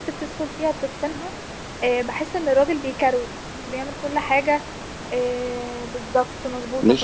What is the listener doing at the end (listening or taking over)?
listening